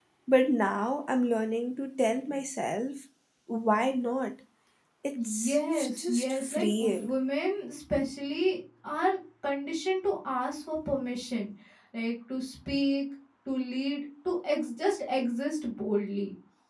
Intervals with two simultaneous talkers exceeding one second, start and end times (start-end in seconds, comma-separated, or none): 5.2-7.2